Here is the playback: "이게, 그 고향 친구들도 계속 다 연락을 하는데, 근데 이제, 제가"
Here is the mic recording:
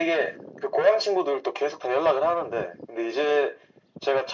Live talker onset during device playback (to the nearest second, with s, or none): none